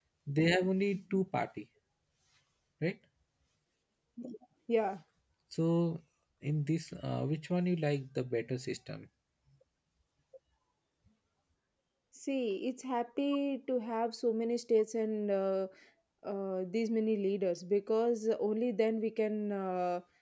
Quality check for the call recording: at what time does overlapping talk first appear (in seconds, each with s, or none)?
none